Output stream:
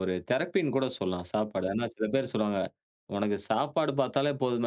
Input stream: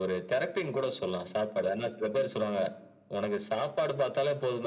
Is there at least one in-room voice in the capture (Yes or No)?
No